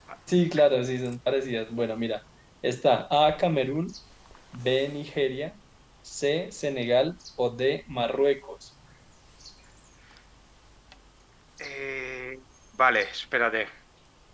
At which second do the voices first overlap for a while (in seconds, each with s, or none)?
none